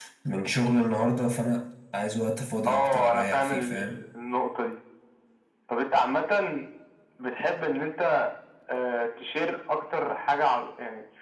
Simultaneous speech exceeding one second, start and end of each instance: 2.6-4.0

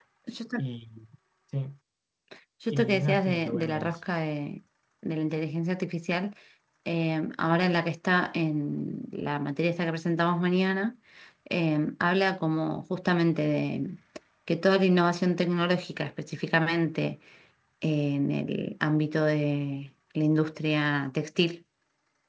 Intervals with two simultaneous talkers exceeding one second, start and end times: 2.7-3.9

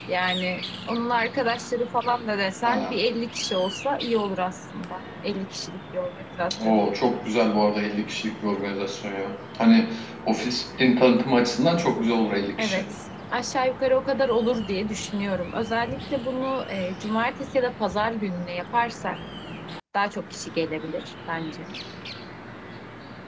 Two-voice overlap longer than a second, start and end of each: none

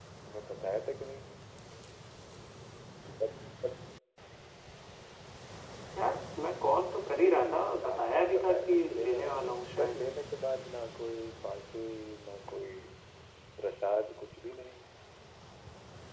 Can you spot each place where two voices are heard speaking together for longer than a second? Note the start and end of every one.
7.2-10.0

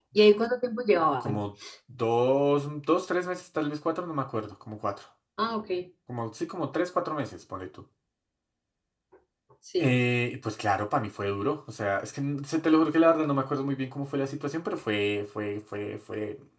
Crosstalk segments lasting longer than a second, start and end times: none

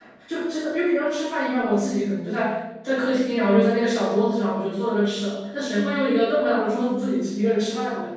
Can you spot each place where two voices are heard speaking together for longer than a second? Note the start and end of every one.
none

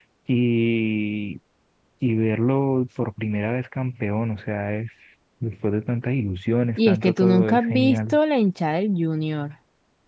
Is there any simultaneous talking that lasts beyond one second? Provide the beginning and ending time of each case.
6.8-8.2

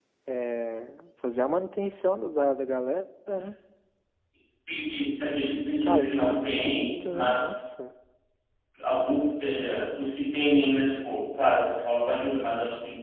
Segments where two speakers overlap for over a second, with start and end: 5.8-7.5

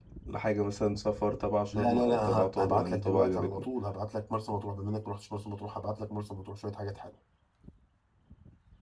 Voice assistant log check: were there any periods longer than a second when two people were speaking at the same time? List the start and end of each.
1.7-3.6

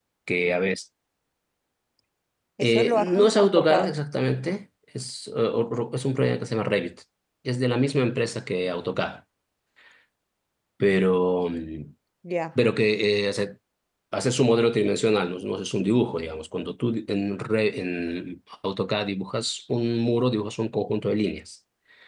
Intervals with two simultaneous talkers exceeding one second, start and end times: 2.6-3.9

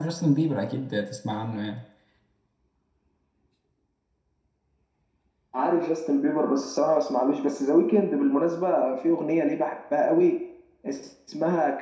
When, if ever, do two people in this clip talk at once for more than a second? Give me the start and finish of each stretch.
none

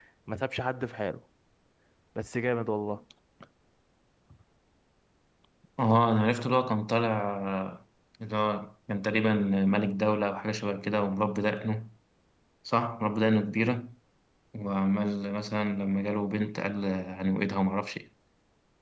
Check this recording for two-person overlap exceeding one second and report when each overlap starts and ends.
none

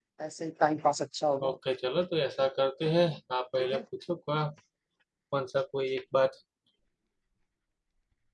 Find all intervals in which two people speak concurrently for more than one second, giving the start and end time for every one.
none

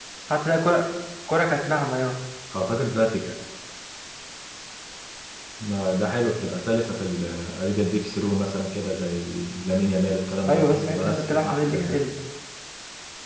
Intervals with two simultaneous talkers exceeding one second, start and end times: 10.5-12.0

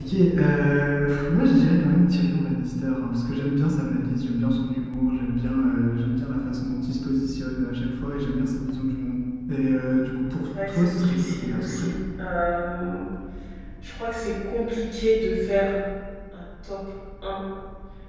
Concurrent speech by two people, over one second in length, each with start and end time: 10.7-11.9

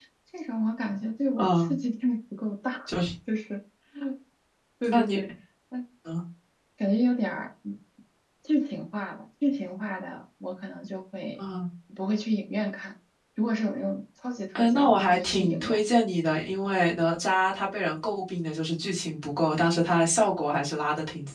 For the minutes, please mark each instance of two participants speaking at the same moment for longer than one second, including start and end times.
14.6-15.8

